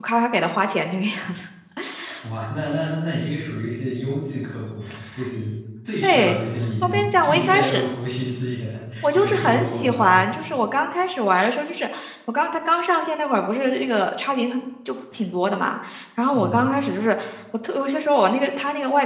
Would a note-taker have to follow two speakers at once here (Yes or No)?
Yes